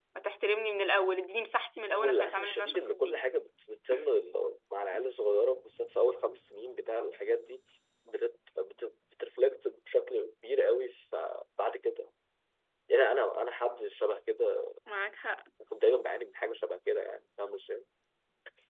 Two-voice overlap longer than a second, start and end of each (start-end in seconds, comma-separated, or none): 1.9-3.2